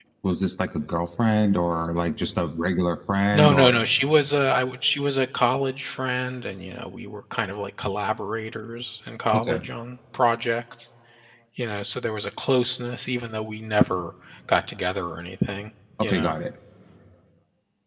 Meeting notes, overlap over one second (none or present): none